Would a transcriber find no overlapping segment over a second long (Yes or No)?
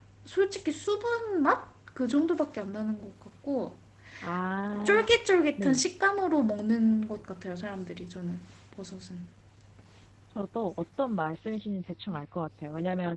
Yes